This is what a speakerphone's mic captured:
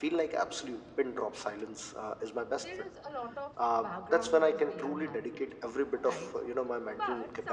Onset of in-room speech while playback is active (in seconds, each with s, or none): 2.5 s